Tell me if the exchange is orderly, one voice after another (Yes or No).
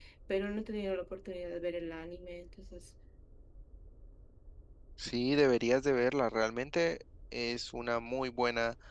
Yes